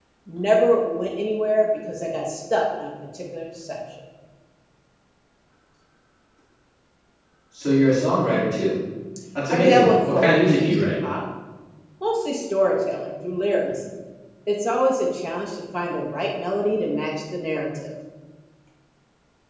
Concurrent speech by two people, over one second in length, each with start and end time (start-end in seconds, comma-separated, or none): 9.5-10.9